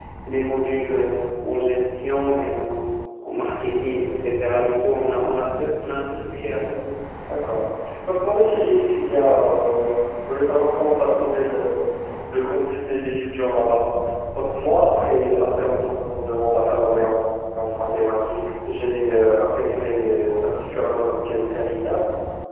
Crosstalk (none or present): none